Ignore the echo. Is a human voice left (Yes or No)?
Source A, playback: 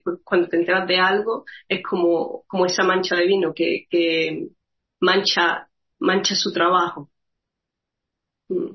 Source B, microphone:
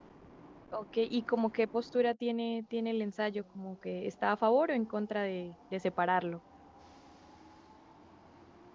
Yes